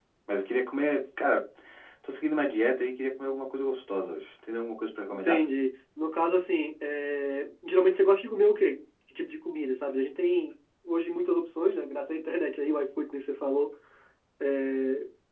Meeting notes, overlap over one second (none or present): none